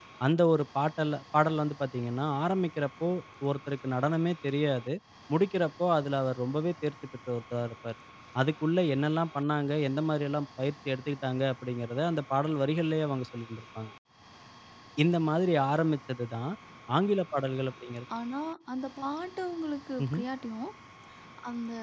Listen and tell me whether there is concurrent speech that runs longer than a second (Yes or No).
No